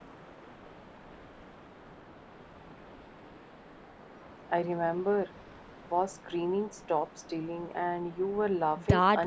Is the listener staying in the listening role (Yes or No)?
No